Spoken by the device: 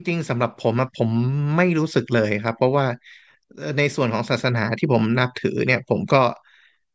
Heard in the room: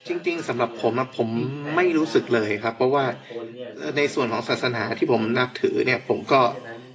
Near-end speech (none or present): present